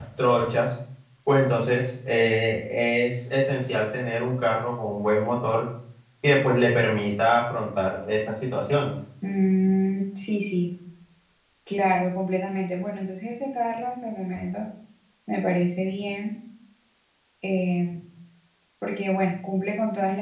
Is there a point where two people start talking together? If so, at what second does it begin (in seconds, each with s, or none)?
none